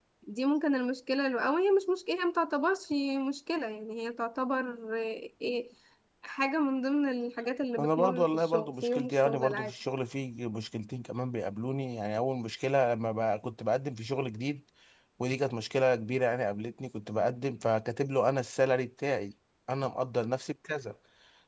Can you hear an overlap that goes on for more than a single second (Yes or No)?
Yes